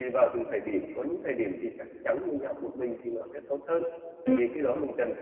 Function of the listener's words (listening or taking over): listening